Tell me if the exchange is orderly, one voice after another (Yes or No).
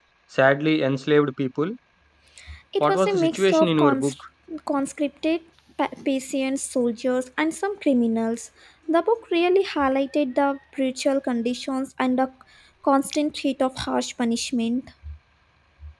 No